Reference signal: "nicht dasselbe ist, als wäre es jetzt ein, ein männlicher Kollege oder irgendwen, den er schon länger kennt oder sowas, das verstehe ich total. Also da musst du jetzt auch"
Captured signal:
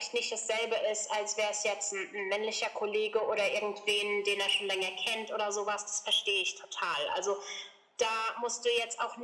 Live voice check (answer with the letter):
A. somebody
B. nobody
B